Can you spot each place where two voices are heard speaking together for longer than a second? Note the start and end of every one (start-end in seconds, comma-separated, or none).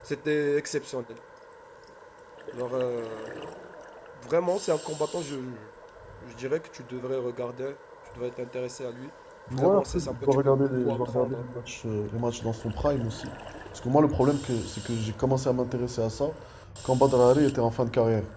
9.5-11.4